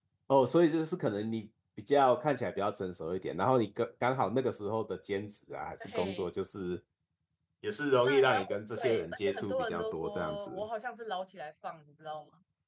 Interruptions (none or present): present